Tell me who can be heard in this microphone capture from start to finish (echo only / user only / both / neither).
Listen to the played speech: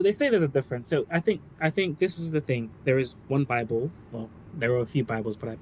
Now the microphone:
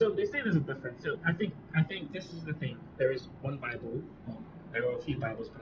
echo only